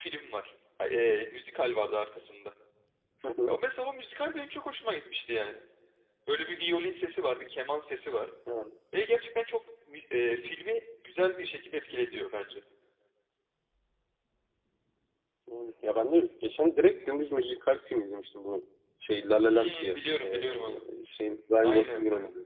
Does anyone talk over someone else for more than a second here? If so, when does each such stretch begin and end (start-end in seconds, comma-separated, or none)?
19.5-20.9